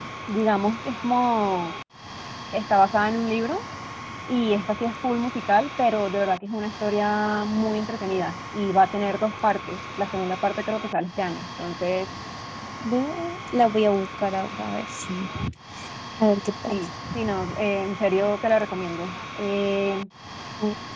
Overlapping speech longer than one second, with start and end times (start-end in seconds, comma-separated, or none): none